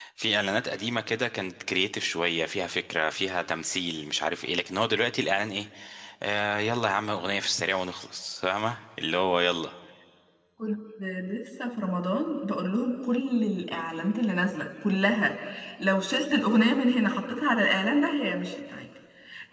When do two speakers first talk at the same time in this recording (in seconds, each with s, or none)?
none